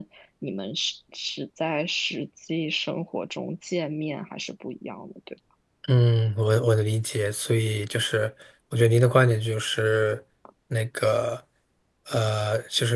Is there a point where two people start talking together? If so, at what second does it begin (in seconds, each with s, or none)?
none